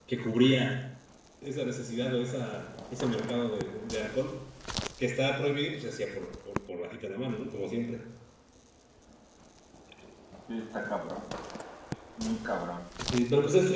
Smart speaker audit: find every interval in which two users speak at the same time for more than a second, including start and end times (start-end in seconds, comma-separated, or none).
none